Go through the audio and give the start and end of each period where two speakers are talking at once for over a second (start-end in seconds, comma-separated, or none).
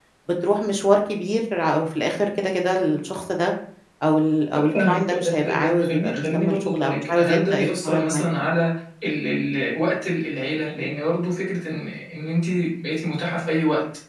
4.6-8.2